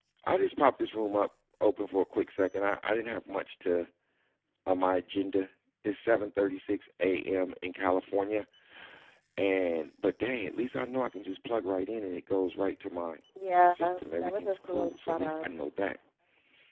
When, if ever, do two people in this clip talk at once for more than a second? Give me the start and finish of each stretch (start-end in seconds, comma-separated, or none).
14.2-15.5